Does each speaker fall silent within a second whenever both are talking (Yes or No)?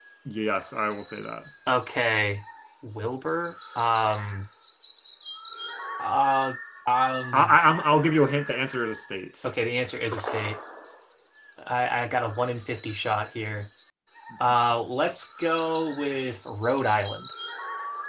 Yes